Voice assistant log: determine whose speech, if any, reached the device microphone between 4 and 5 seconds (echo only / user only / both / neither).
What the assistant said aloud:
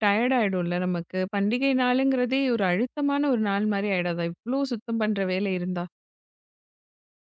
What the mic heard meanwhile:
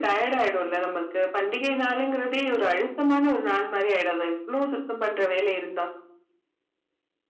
echo only